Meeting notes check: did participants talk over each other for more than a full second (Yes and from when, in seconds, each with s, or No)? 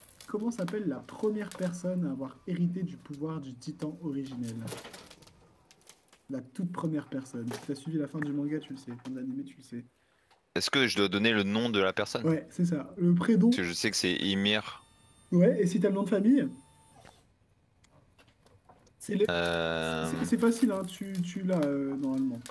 No